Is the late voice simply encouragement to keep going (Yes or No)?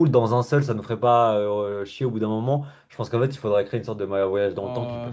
No